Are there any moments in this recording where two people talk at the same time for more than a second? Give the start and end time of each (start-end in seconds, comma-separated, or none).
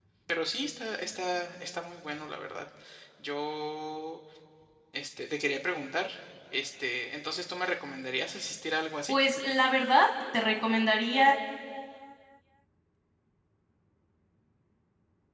none